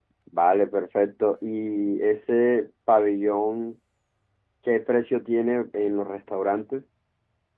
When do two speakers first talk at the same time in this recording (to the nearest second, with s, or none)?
none